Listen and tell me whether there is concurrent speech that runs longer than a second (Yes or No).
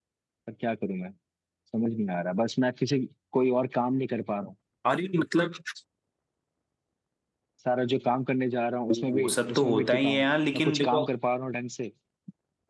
Yes